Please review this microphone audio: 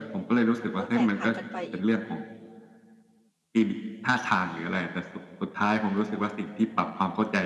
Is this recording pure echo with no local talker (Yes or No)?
No